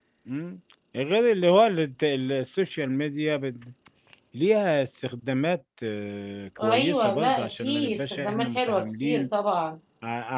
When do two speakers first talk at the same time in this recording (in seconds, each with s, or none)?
6.6 s